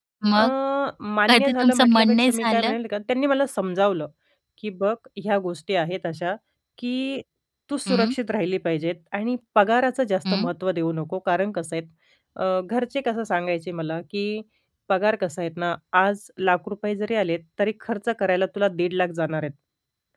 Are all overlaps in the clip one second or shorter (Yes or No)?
No